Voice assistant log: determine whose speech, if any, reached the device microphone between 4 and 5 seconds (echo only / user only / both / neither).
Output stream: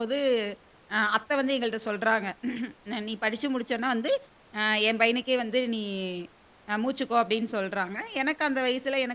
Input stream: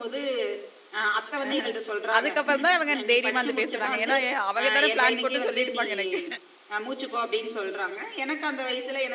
both